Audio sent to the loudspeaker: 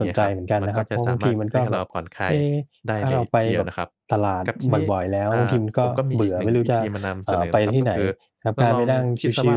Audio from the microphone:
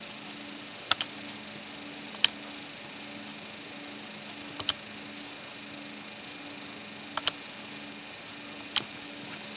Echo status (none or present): none